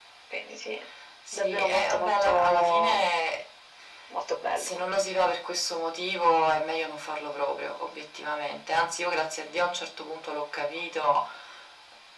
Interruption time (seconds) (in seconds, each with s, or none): 1.3 s